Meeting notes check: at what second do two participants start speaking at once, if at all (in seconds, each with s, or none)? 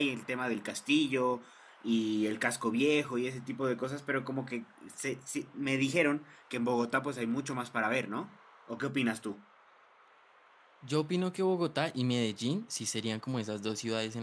none